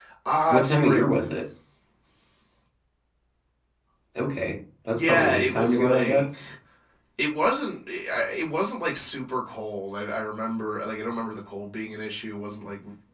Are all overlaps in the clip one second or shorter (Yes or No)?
No